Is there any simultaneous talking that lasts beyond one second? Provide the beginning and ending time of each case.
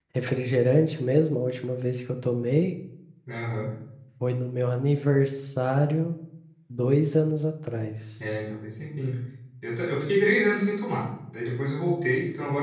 none

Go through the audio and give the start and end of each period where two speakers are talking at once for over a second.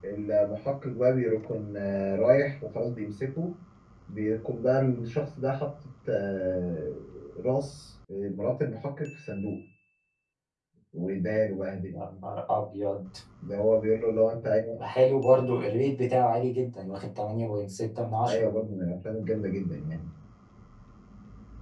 none

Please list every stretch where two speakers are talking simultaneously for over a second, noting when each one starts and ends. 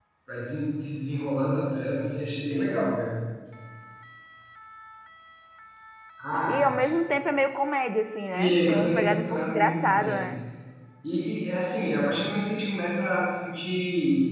8.3-10.3

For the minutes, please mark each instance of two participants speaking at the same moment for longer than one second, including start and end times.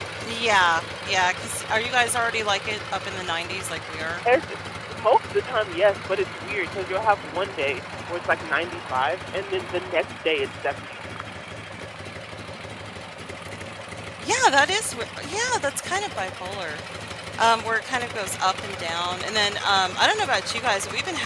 none

